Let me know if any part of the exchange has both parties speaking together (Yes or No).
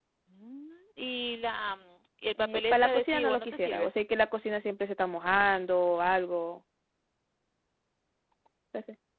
Yes